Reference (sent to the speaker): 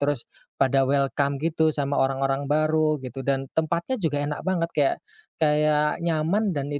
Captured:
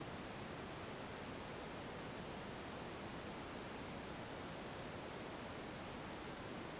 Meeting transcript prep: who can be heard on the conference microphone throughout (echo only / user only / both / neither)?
neither